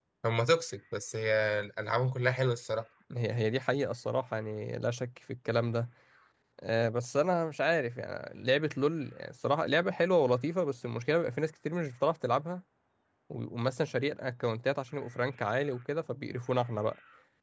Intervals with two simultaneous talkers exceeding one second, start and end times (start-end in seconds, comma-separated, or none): none